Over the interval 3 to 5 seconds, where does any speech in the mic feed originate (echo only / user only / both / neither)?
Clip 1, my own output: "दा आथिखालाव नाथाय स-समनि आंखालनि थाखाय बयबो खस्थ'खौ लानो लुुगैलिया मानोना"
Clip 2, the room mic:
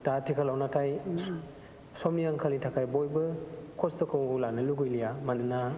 echo only